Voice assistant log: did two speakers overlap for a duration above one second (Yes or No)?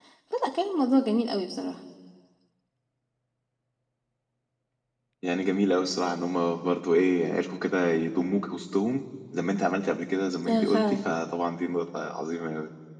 No